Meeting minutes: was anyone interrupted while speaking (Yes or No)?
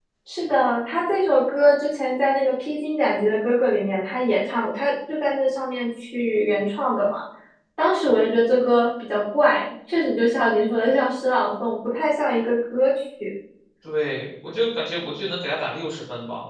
No